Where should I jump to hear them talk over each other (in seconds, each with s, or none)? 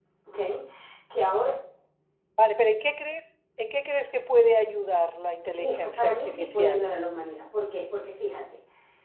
5.6 s